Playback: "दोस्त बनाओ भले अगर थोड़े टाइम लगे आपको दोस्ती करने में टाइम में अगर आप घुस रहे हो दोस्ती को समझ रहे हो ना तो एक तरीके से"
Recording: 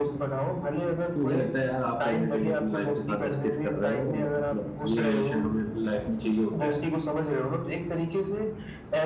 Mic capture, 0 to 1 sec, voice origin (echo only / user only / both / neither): echo only